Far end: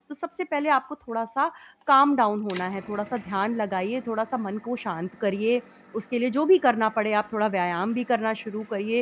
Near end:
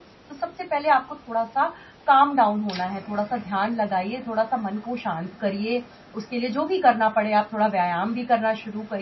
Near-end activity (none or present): none